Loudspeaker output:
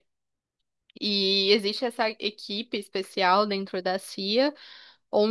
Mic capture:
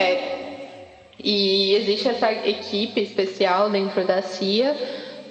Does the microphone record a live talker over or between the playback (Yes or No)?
No